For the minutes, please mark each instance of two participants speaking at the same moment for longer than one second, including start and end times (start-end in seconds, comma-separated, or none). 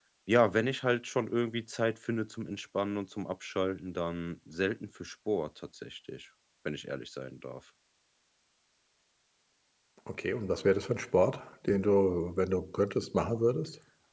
none